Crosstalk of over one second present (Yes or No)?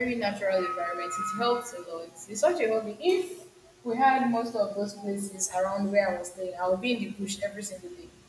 No